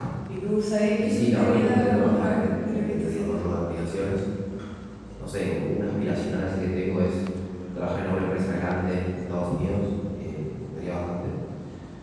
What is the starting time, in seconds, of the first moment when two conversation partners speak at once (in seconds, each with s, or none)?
1.0 s